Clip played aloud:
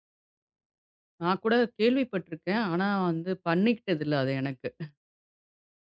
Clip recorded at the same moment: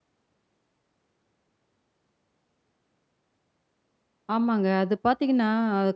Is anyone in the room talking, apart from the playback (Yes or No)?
Yes